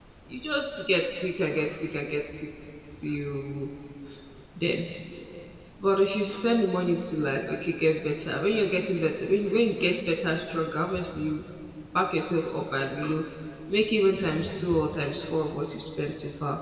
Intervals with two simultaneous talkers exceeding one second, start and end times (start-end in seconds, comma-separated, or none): none